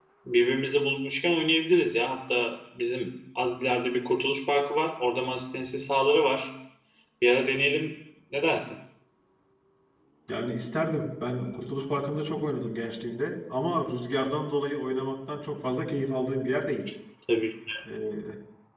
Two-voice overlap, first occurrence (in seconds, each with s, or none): none